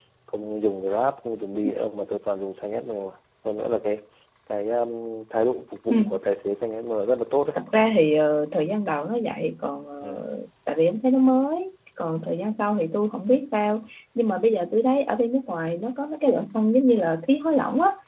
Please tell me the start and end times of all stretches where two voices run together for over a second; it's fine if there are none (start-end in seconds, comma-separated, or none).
none